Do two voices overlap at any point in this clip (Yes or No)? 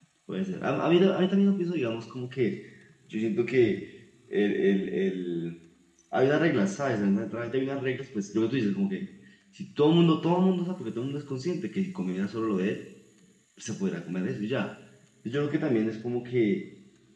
No